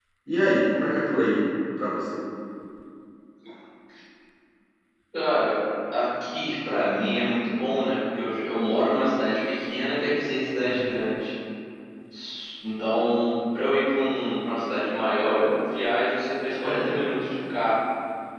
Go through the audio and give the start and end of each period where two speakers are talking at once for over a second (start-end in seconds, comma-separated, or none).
none